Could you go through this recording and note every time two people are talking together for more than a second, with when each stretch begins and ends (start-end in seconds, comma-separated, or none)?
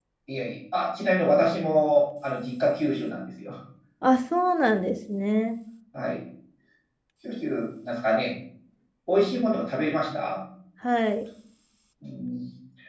none